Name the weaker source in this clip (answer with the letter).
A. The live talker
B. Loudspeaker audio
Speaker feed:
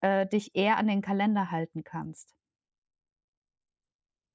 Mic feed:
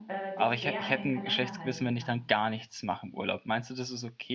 B